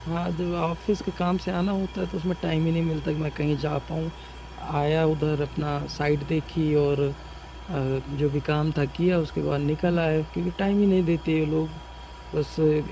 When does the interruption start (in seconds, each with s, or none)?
none